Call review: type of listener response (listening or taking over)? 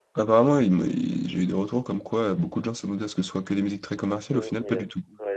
taking over